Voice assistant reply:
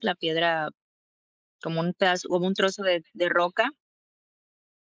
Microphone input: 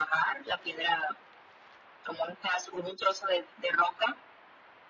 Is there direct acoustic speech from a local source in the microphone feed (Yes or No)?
No